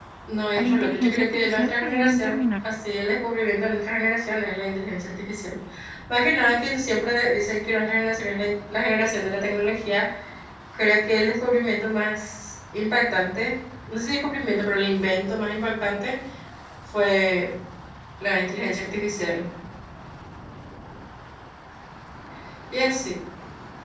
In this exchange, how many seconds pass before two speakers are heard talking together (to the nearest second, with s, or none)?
1 s